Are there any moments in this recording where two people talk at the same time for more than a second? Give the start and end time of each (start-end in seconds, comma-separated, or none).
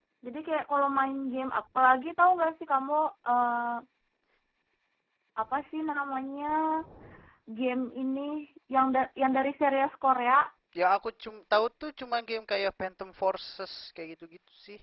none